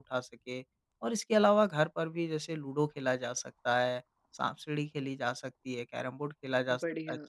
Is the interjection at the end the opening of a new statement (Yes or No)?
No